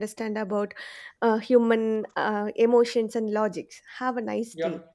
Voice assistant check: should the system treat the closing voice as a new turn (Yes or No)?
Yes